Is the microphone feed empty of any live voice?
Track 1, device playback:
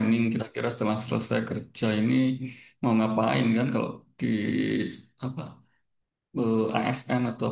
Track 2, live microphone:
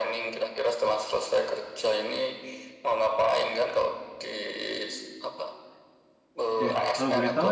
No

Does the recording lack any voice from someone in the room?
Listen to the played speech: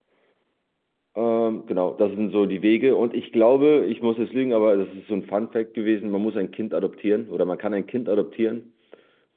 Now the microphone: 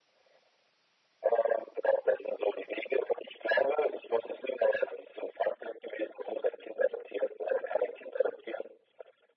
Yes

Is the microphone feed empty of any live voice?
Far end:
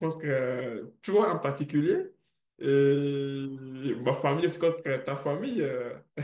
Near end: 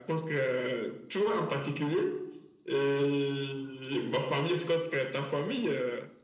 Yes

